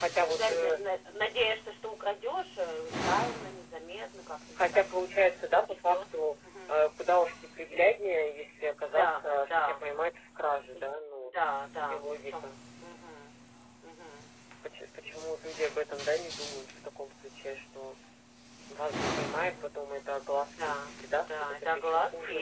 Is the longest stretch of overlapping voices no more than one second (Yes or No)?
No